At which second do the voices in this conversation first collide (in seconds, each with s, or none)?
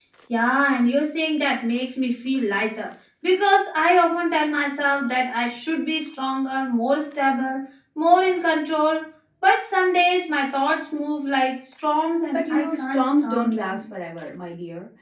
12.3 s